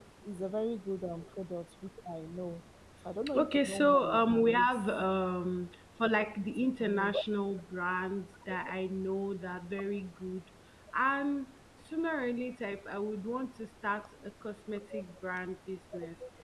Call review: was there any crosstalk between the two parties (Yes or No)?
Yes